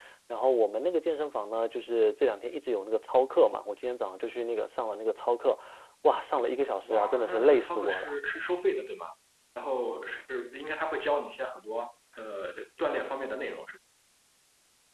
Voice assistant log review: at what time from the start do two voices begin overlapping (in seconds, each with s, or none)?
6.8 s